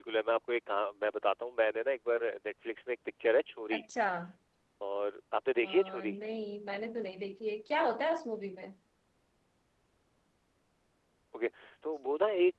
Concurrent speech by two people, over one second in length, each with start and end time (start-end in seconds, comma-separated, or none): none